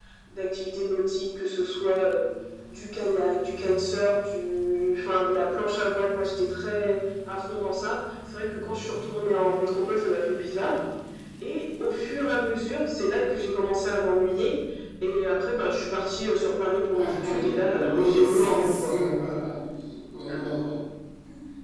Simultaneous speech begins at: 16.9 s

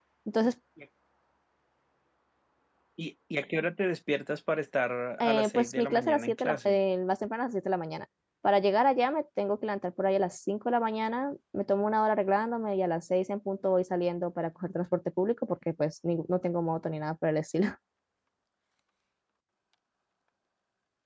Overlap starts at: 5.2 s

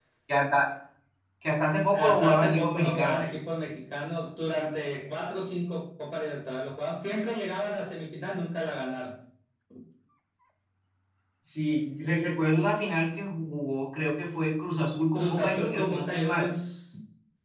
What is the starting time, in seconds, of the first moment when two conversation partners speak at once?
1.9 s

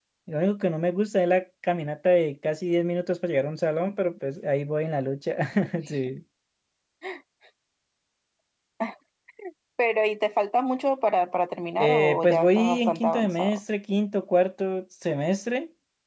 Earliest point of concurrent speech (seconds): 11.8 s

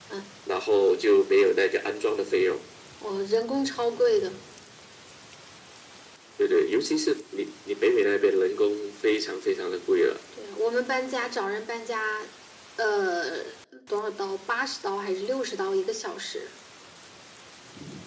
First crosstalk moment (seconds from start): none

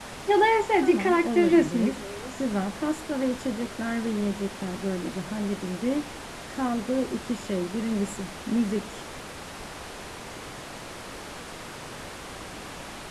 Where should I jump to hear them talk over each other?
0.8 s

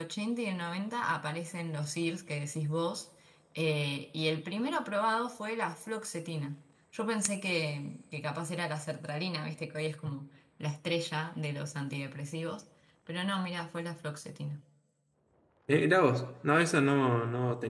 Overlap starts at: none

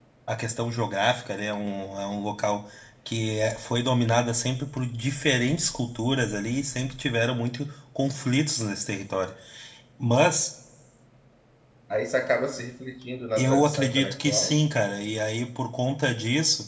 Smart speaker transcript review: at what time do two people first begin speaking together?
13.4 s

